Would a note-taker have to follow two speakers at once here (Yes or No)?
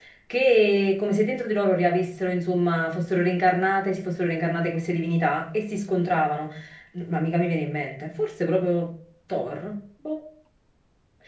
No